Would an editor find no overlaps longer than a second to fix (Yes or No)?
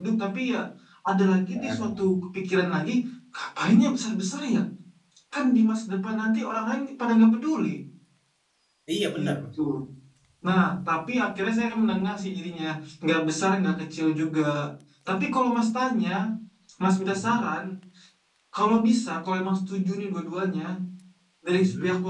Yes